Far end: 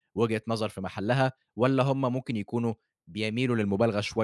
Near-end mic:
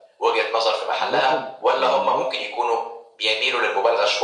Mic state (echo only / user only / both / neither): both